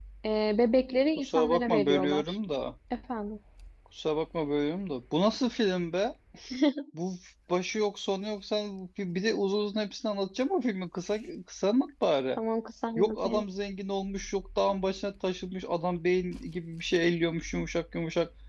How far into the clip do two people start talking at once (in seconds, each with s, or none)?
1.2 s